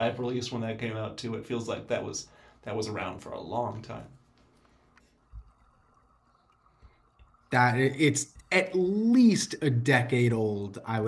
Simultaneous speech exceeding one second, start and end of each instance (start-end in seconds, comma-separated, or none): none